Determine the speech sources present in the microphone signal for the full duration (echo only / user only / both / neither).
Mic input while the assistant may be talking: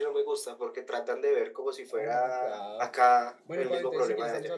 both